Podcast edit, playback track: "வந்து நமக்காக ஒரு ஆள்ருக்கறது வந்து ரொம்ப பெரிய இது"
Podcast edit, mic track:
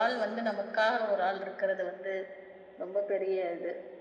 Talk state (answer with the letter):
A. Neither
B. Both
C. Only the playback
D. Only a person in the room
C